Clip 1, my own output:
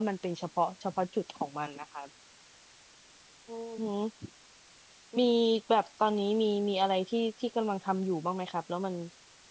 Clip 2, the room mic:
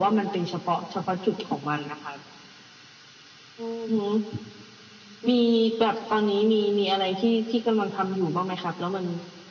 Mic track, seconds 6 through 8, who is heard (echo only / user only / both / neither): echo only